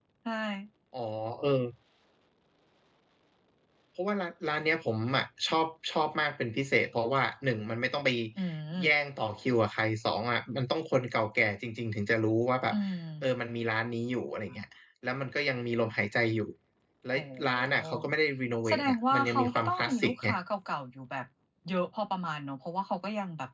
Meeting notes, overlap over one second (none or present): present